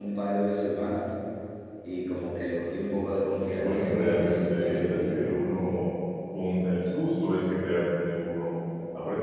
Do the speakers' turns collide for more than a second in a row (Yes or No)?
Yes